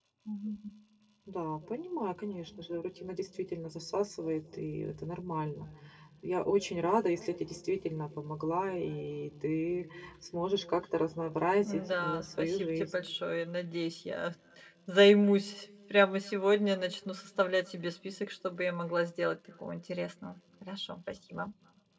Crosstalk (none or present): present